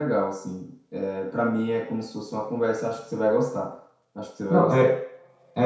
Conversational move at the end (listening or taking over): taking over